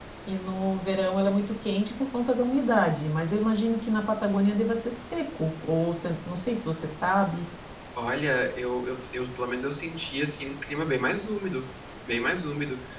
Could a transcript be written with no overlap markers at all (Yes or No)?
Yes